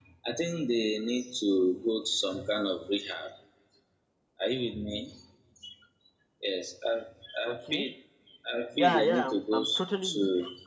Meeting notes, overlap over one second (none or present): present